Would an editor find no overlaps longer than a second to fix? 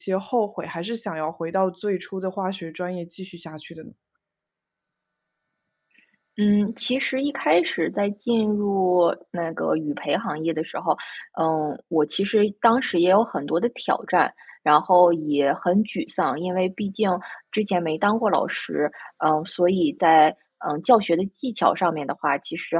Yes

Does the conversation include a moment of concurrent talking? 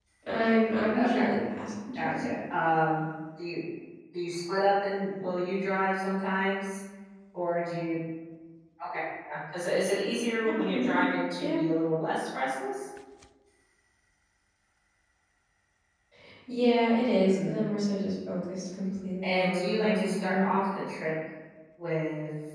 Yes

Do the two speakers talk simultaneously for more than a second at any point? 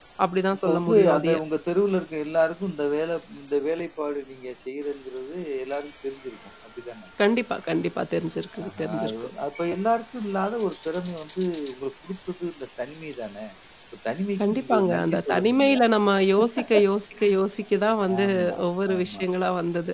Yes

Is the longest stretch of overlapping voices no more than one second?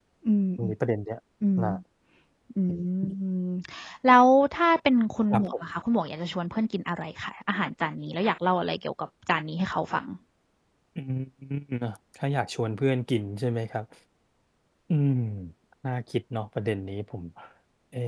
Yes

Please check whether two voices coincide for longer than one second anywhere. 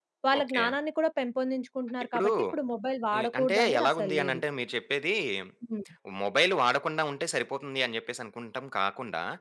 Yes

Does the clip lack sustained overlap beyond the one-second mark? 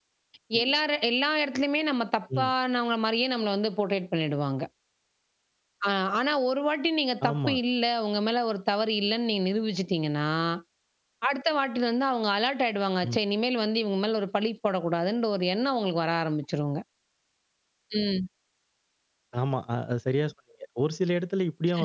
Yes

